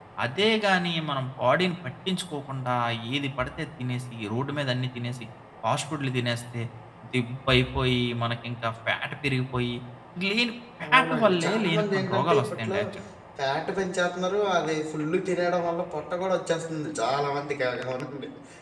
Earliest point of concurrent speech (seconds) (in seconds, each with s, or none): 10.8 s